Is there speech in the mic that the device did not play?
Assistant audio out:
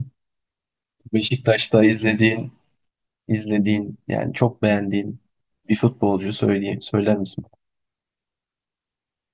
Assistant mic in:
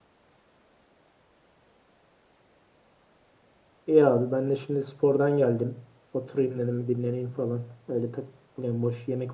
Yes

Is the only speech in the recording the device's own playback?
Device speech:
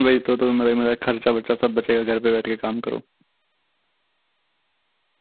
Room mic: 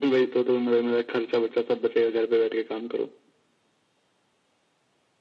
Yes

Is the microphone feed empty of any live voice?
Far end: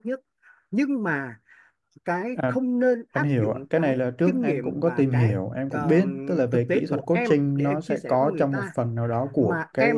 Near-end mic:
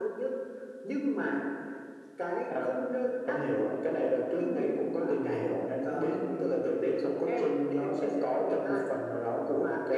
Yes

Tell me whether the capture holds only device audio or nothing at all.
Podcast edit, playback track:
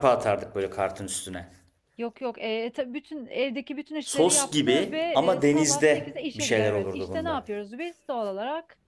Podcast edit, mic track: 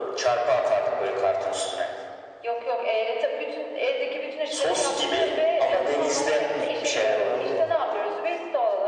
No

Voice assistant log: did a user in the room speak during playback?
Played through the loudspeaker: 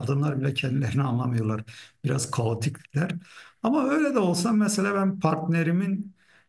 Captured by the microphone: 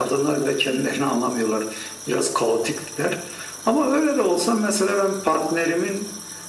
No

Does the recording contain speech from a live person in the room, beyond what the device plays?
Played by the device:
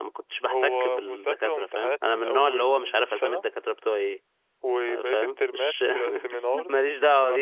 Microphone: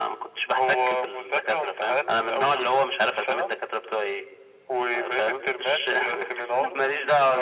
No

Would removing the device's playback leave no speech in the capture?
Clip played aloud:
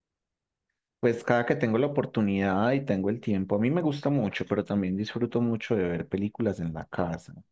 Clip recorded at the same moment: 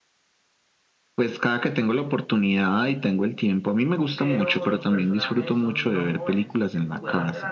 No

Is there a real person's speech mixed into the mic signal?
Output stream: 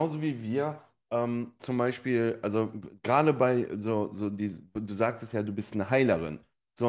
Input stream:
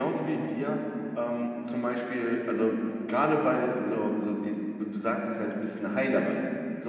No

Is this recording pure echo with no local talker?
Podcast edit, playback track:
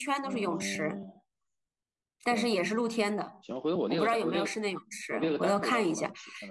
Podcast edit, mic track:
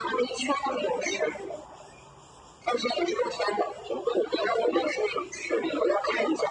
Yes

